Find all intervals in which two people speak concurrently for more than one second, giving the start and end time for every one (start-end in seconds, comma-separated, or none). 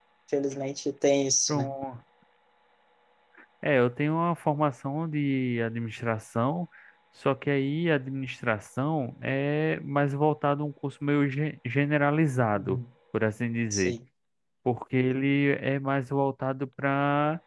none